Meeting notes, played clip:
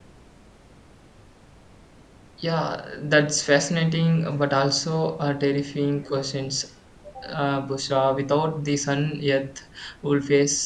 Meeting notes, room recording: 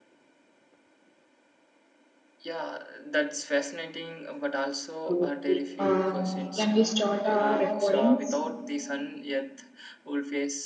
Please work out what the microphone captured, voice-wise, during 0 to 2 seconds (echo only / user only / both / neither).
neither